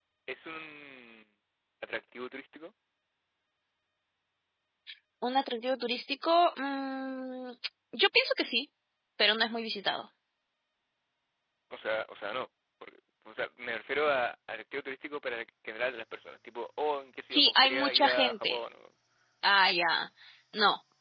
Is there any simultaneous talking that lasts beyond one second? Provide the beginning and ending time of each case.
17.3-18.6

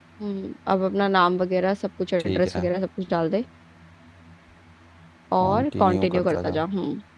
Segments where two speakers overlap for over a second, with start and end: 5.4-6.6

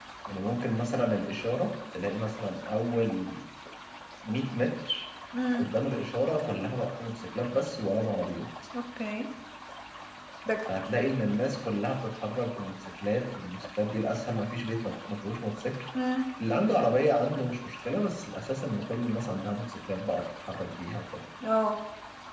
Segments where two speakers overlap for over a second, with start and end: none

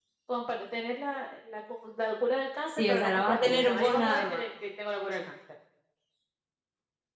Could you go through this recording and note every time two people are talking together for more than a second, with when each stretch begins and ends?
2.7-4.4

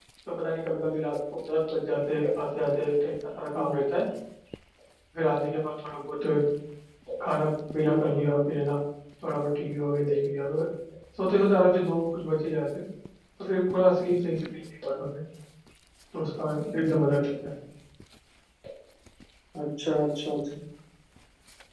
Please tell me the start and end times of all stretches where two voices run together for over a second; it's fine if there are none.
none

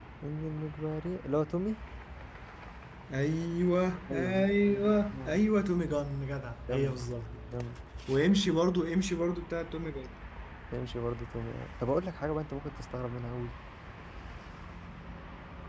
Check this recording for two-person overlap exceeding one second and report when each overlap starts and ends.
4.1-5.6

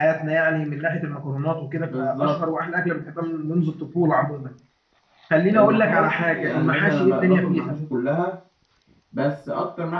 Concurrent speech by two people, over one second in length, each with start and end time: 5.5-7.8

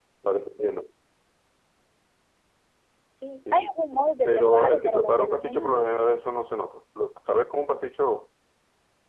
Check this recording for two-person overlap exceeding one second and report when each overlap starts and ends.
4.2-5.8

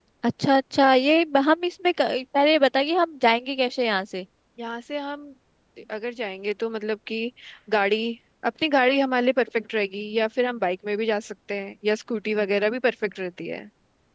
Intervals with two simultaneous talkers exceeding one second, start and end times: none

